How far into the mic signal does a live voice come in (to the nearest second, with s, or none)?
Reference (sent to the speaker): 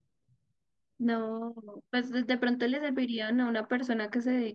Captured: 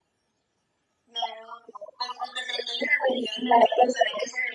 none